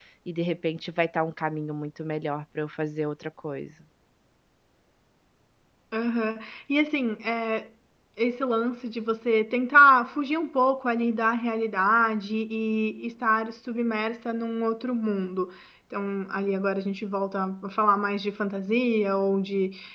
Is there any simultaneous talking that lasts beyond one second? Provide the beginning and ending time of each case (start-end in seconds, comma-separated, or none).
none